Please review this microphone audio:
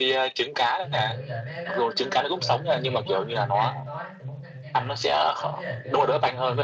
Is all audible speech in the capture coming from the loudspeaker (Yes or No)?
No